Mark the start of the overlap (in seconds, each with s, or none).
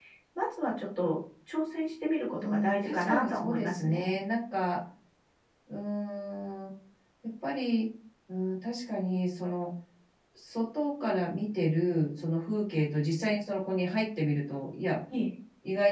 2.3 s